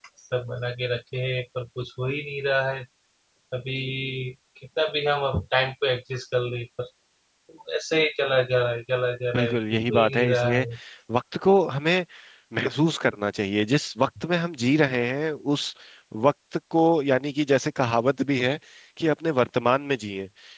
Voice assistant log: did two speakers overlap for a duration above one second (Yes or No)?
Yes